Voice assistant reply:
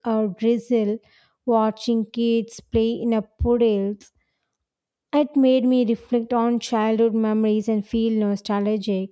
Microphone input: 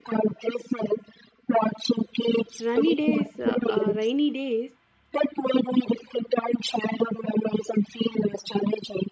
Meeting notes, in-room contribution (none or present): present